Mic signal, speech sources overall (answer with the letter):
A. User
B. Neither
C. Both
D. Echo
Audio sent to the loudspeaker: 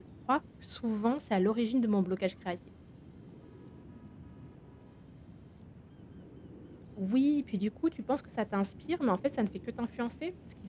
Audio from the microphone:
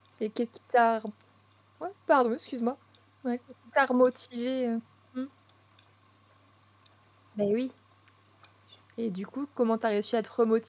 A